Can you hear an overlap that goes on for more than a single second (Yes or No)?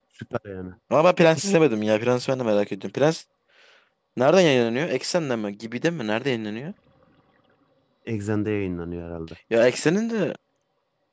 No